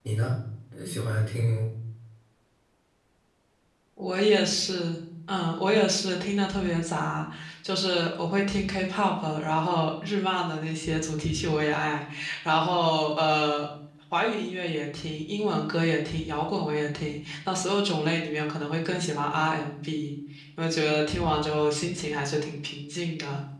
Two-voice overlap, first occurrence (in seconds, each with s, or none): none